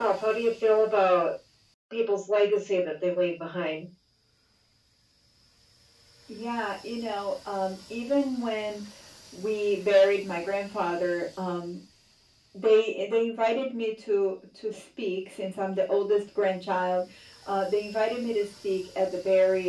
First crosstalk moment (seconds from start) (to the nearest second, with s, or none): none